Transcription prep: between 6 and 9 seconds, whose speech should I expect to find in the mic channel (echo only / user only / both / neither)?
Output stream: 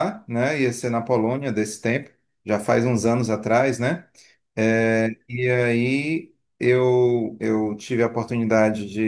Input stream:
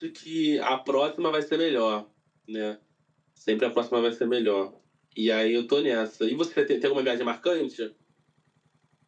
user only